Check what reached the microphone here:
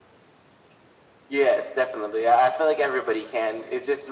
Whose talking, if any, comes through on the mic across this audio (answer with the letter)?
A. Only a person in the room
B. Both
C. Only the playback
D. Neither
C